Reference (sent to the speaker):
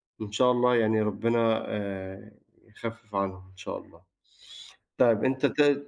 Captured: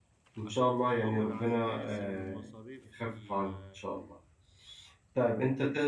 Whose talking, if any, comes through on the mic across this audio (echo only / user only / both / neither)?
both